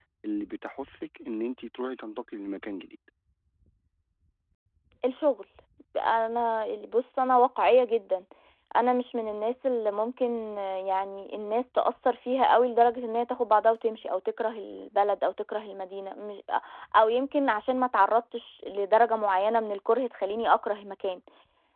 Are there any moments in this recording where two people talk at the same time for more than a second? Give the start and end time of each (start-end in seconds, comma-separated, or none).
none